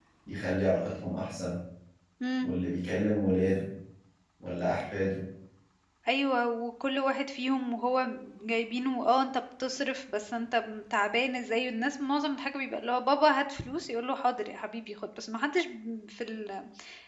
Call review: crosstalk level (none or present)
none